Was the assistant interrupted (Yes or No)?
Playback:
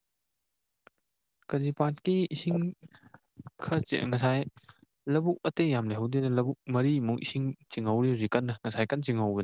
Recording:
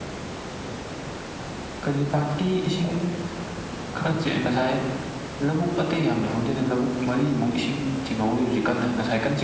No